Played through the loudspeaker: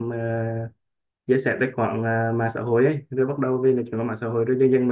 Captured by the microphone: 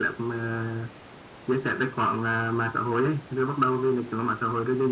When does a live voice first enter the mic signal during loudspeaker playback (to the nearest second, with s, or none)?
none